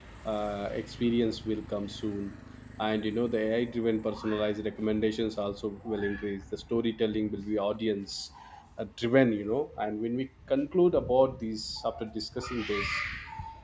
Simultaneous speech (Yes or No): No